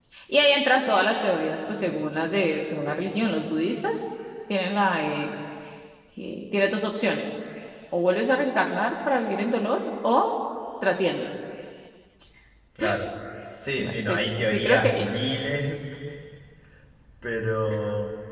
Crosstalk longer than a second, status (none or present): present